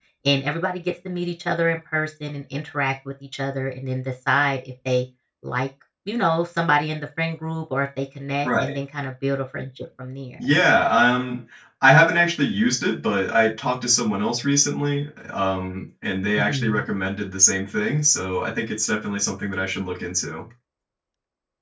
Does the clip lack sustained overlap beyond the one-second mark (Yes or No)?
Yes